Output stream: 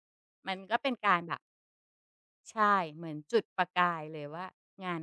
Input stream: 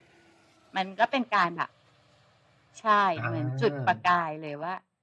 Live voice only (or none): อา